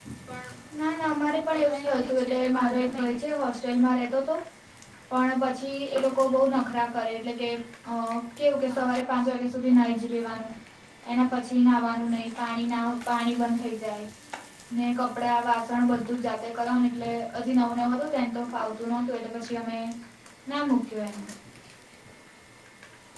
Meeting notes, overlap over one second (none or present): present